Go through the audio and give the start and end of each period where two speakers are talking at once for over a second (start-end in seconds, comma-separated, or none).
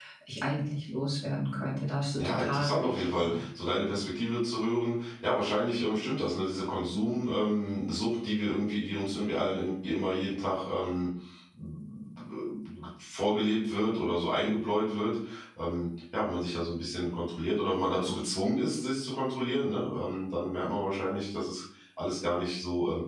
2.2-3.4